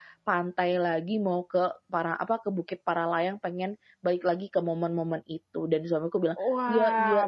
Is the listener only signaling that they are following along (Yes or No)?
No